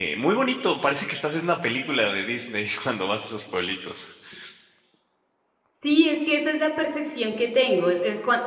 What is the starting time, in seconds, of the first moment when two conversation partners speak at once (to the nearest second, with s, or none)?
none